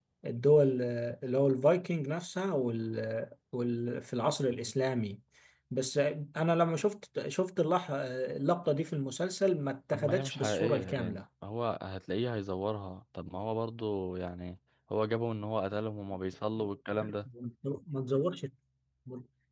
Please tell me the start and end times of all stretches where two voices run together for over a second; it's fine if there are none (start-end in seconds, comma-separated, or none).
9.9-11.2